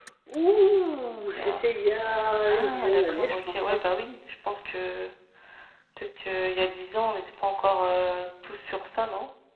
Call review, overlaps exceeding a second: present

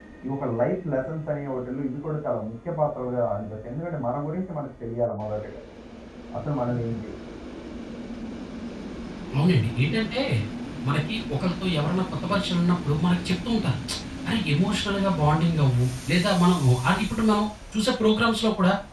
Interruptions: none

